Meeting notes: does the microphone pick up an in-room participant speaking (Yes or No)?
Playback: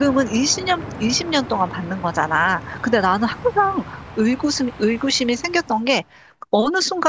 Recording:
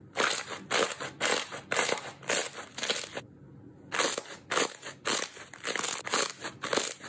No